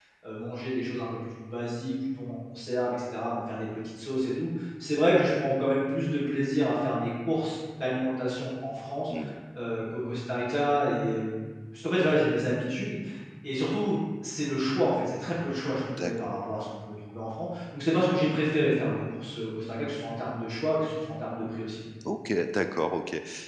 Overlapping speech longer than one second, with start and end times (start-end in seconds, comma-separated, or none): none